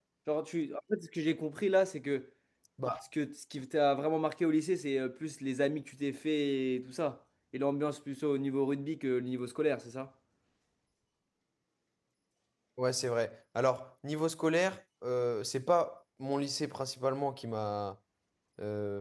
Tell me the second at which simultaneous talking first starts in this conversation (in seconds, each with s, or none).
none